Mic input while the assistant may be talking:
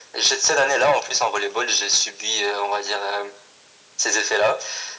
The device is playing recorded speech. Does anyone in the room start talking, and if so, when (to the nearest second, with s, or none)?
none